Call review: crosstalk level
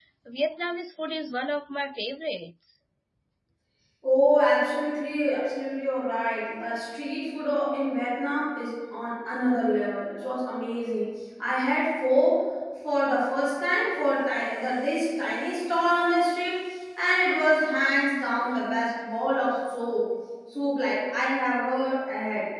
none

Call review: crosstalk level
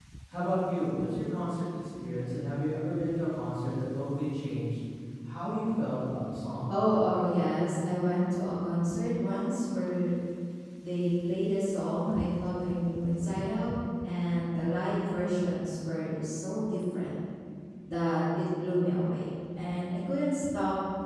none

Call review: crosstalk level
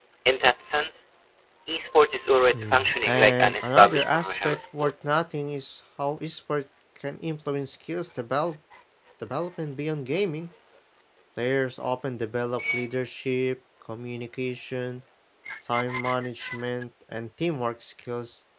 present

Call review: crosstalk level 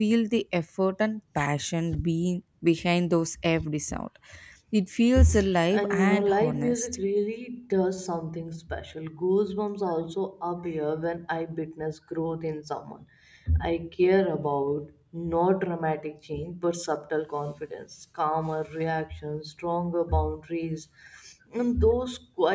present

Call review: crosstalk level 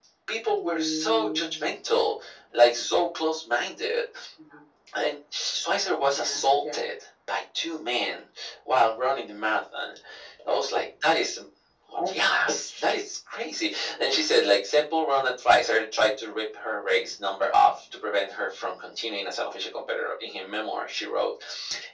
present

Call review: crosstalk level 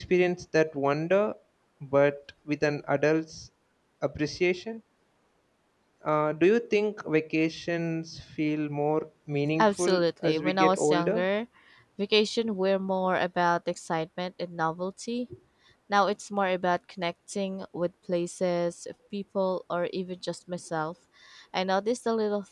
present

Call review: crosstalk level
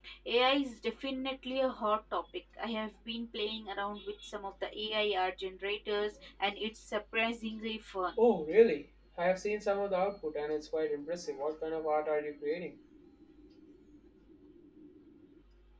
none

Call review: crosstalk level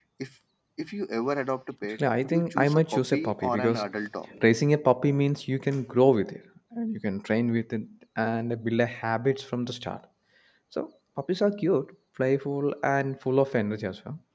present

